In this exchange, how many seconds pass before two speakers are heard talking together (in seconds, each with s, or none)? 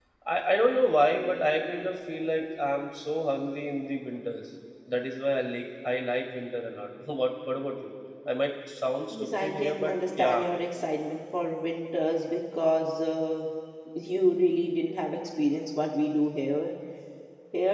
9.1 s